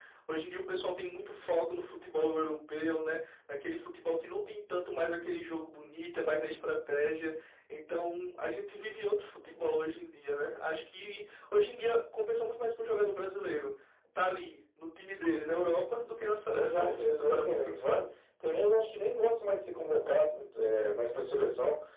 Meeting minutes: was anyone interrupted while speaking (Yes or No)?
Yes